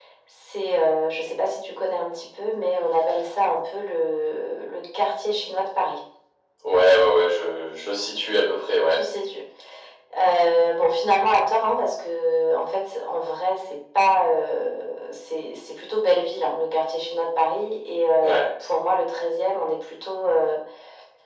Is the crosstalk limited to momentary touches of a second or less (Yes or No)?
Yes